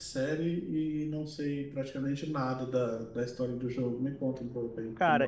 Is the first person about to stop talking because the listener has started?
Yes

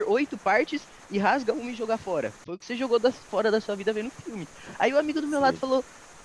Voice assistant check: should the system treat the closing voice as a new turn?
No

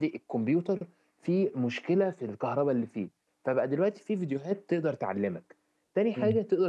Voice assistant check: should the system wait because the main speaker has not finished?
Yes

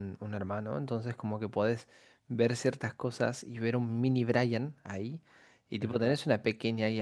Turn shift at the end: No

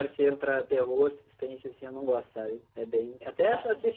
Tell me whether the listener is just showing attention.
Yes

